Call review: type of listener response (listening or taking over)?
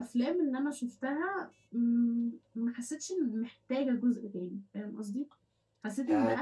taking over